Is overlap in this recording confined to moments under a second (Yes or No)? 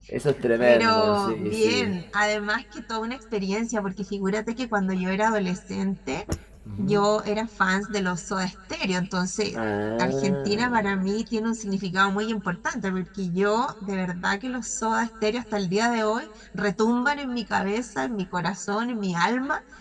No